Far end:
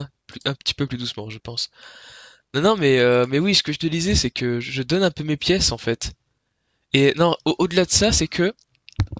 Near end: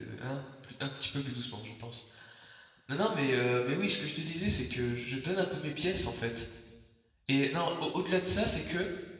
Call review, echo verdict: present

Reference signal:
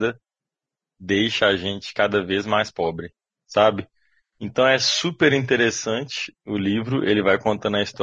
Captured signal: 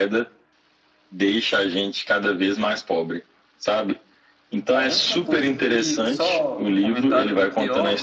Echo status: present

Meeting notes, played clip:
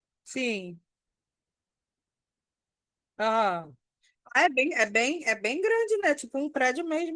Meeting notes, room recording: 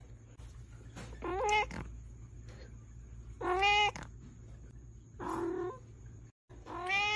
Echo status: none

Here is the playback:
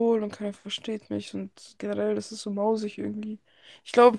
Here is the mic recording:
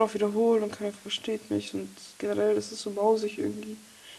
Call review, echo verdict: present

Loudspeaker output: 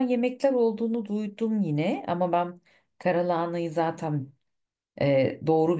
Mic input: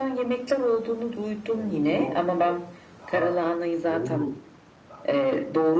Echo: present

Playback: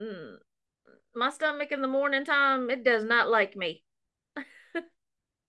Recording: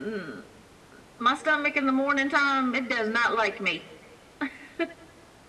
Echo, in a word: present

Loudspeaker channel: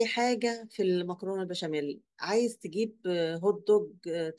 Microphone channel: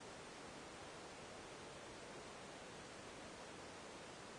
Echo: none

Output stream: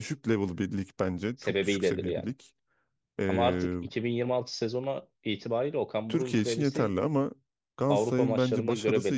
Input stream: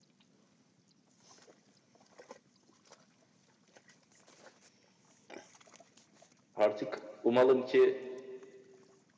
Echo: none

